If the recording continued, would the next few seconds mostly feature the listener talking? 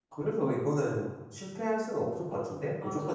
Yes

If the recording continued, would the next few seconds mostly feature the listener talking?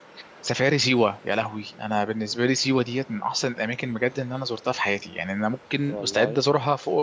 No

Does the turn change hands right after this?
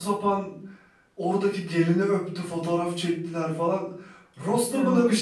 No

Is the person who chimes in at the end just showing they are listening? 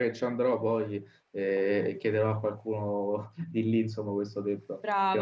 No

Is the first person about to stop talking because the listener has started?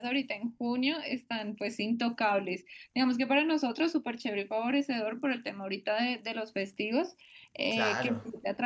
No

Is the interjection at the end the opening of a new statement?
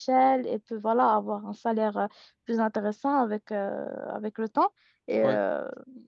No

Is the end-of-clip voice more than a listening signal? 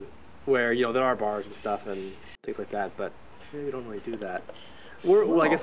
No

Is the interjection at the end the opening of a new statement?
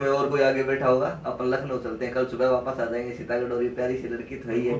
Yes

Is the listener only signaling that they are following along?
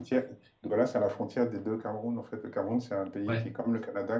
Yes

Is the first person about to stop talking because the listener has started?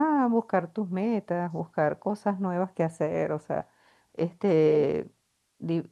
No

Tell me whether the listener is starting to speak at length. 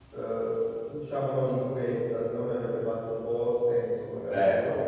No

